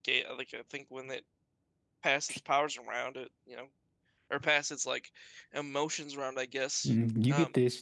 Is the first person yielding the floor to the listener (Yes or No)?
Yes